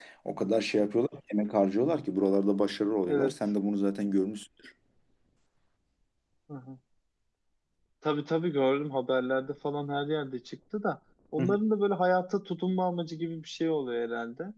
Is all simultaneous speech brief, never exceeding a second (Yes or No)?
Yes